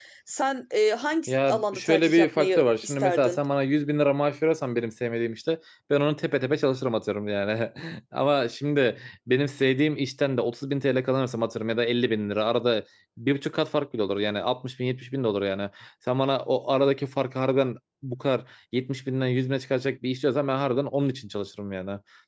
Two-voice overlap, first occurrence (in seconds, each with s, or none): 1.3 s